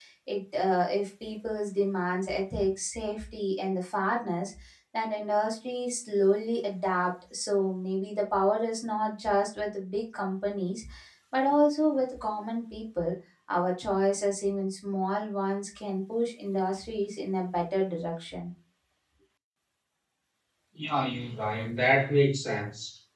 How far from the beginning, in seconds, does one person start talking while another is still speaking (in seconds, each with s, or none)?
none